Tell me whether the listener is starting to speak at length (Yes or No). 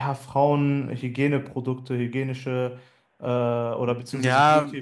Yes